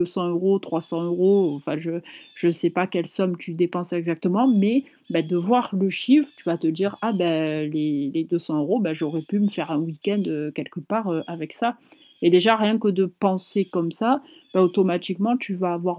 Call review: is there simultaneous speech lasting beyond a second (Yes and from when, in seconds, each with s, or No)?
No